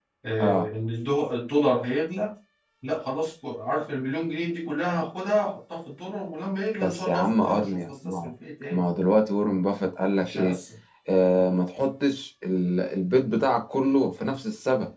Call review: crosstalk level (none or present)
present